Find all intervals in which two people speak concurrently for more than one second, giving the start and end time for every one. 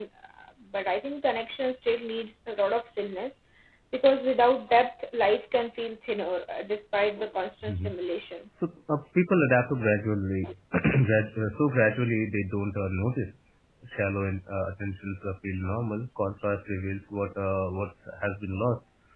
none

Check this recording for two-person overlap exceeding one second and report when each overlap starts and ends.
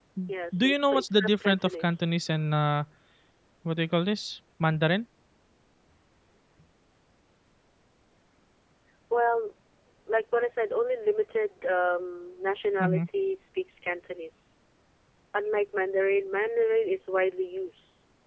0.5-2.0

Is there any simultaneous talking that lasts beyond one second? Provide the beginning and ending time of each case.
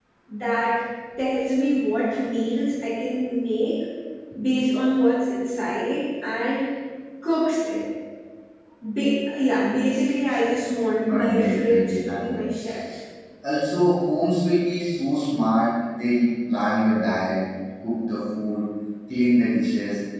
11.0-12.4

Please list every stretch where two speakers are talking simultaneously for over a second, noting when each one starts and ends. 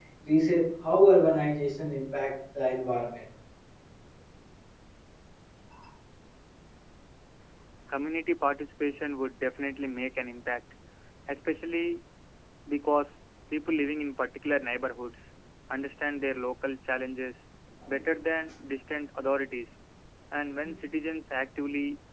none

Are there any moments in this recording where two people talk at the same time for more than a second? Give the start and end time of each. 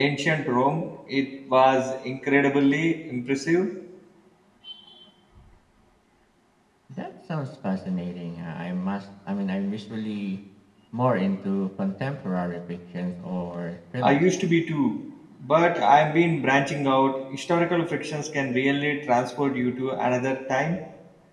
none

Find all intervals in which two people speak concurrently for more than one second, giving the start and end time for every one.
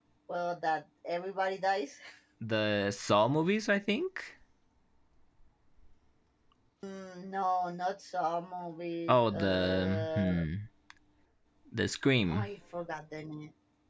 9.1-10.4

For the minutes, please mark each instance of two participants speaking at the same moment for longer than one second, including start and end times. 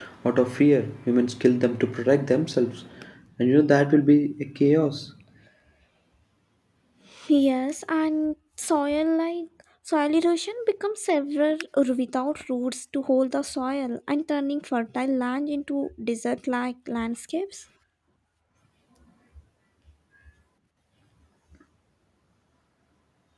none

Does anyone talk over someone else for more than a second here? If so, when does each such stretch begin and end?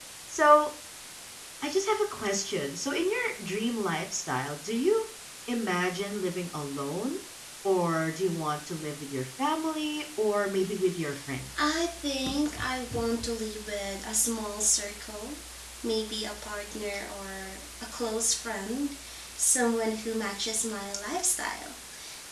none

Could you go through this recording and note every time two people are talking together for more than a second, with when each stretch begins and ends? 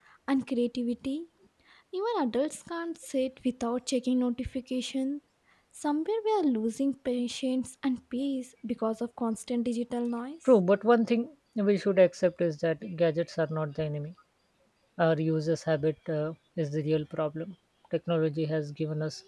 none

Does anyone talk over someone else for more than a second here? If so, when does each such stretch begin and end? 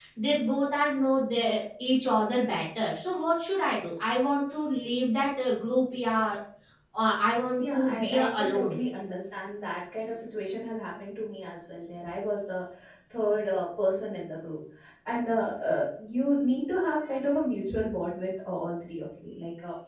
7.5-8.8

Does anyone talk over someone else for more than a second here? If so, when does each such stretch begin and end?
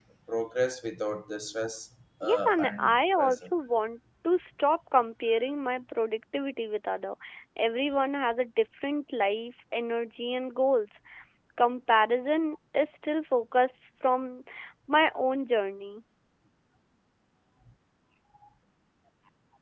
2.2-3.5

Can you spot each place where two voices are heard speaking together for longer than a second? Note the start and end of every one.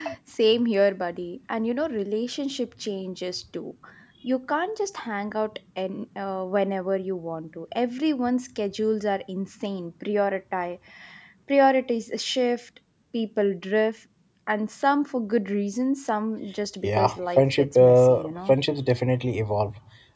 16.8-18.5

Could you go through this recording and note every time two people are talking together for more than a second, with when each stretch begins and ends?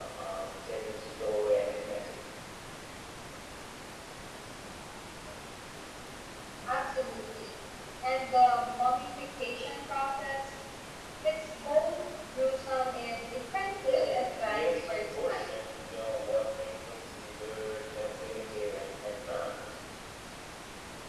13.8-15.6

